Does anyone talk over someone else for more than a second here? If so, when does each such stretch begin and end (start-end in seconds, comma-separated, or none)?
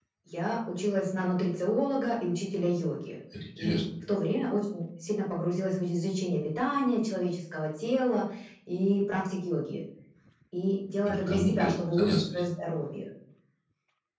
11.1-12.5